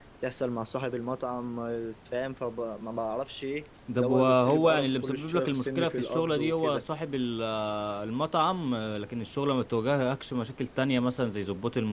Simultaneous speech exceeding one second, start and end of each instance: 4.0-6.8

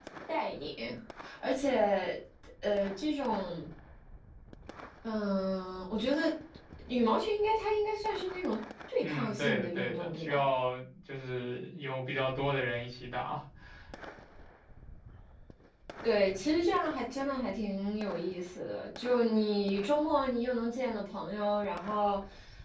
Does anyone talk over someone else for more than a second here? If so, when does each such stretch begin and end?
9.0-10.4

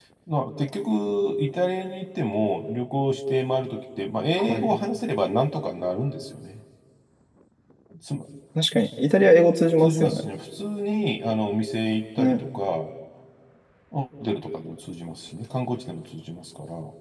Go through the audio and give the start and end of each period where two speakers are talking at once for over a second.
none

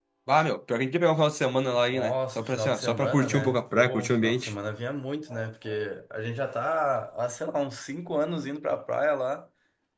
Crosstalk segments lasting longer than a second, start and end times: 1.9-4.5

